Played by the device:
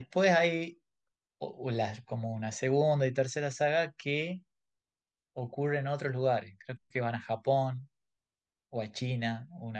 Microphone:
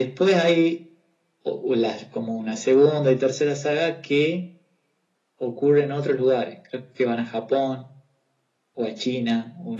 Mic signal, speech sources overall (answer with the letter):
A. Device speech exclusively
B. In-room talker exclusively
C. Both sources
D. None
A